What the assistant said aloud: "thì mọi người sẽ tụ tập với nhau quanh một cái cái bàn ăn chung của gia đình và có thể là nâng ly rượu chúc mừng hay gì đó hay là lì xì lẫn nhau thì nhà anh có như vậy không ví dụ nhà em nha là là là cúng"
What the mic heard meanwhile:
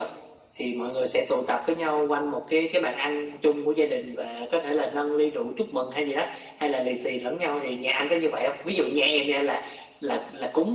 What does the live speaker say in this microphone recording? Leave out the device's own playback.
none

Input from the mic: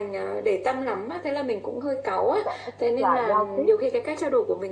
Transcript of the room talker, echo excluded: sẽ thích là giao tiếp

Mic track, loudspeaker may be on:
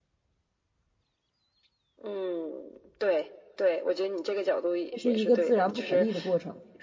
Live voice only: 这是一个自然不可逆的过程。

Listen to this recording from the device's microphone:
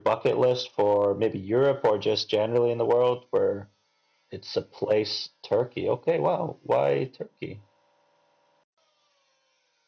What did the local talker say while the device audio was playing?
none

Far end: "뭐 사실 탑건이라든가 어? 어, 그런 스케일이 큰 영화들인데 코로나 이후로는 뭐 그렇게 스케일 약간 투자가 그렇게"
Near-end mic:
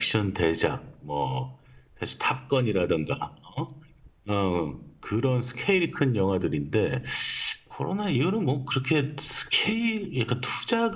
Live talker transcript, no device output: none

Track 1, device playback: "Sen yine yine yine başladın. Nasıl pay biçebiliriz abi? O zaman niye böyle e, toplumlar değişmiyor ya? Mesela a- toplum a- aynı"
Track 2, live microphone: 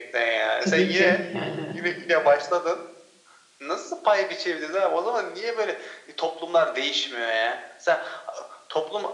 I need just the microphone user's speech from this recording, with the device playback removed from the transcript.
Tabii ki yani

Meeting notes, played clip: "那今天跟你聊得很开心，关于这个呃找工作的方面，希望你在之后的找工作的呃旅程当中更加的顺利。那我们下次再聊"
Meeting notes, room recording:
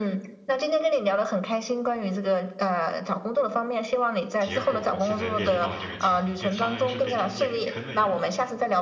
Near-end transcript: 结果现在面临到了这个情况，就相当于是被中介给坑了一把。

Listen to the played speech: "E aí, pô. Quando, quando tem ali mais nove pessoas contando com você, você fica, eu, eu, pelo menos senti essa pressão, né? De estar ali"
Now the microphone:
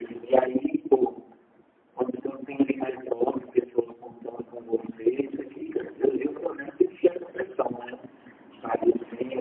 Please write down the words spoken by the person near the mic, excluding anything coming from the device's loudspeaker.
none

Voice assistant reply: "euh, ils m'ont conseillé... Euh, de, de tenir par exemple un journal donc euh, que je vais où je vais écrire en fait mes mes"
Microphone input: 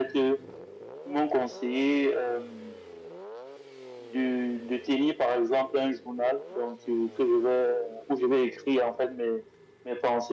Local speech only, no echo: none

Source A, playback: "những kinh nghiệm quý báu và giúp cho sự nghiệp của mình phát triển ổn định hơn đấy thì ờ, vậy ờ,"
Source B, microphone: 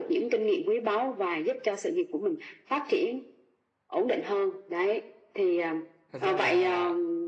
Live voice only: thật ra là

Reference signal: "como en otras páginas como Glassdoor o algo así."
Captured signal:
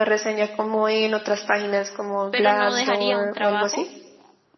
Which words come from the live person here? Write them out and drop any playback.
Pero no dejaría un trabajo

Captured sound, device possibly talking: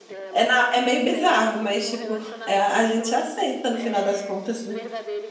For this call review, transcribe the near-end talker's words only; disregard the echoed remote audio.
É, na- é meio bizarro, mas, tipo, é, a a gente aceita no final das contas, né?

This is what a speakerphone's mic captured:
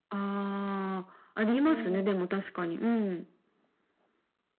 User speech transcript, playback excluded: うん。う

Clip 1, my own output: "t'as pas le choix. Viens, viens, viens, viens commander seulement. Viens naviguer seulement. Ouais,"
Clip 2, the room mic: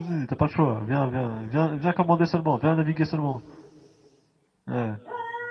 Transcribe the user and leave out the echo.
none

